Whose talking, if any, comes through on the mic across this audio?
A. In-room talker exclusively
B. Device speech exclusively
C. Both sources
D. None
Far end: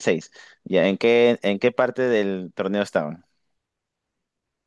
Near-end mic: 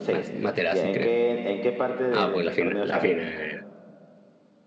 C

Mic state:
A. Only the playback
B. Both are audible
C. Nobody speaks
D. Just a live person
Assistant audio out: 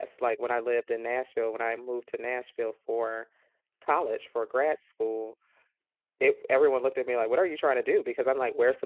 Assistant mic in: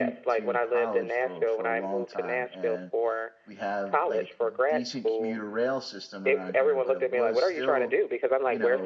B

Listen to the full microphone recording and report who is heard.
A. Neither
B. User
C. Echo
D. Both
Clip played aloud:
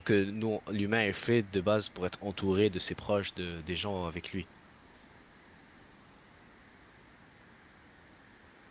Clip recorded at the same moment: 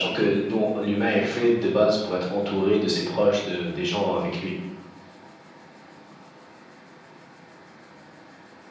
C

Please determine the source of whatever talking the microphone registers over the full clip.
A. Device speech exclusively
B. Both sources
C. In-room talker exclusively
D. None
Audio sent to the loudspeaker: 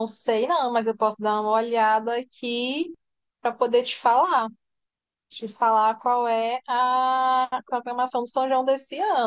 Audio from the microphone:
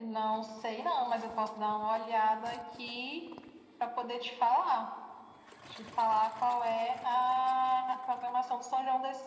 A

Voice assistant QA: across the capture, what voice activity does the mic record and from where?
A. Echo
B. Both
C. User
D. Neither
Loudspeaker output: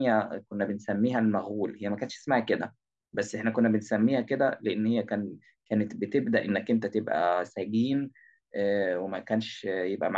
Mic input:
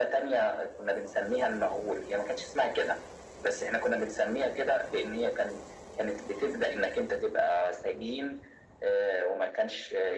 A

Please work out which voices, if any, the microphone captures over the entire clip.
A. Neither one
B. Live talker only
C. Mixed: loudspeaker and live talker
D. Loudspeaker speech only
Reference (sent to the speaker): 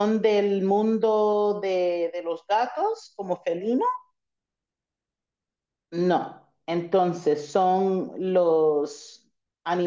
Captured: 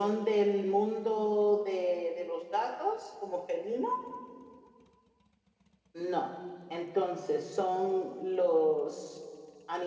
D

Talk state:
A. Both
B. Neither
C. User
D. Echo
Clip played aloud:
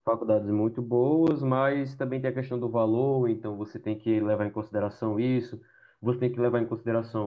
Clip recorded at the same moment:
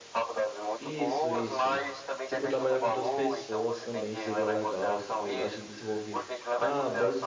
A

